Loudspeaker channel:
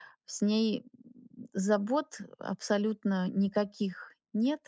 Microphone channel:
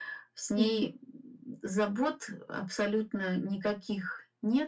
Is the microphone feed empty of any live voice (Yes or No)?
No